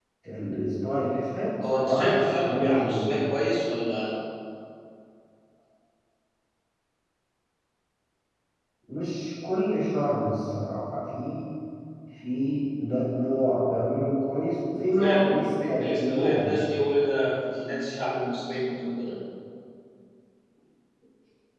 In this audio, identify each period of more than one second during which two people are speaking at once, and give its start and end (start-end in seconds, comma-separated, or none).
1.8-3.1, 15.0-16.5